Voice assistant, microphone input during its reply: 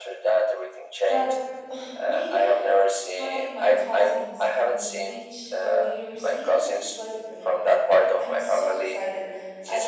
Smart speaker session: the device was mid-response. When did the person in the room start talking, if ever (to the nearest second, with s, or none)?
1 s